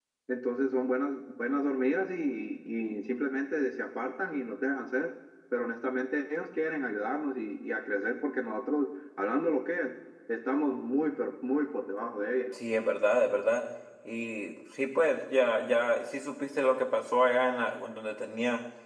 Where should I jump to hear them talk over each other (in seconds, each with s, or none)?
none